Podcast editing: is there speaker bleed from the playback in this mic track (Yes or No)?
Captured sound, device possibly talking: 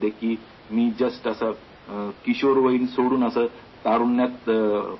Yes